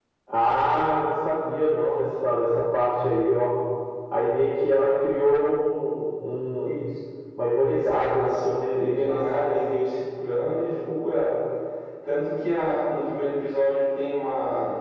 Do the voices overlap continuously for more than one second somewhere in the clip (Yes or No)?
Yes